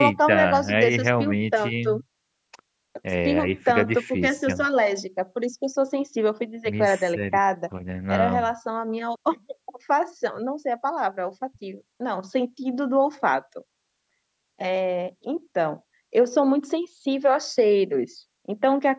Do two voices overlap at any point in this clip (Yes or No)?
Yes